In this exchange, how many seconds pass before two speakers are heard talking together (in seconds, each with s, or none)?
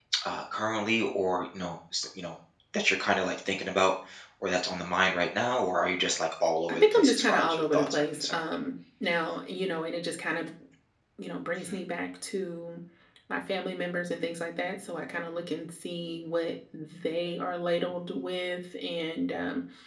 6.7 s